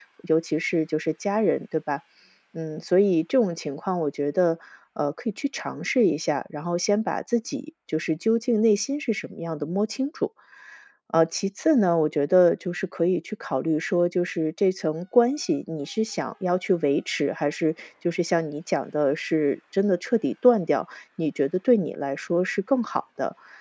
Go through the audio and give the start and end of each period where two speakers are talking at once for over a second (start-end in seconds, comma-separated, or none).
none